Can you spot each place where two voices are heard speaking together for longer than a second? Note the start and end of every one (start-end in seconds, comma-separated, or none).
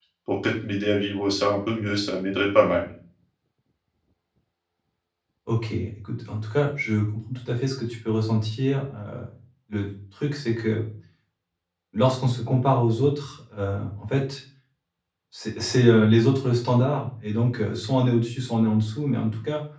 none